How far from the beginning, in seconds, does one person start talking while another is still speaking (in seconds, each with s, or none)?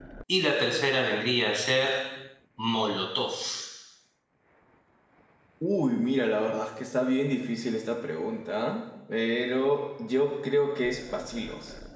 none